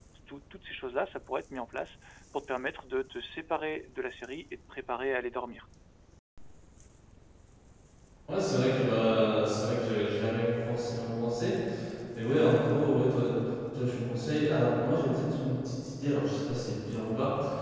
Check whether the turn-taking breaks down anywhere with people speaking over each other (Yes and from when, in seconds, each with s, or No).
No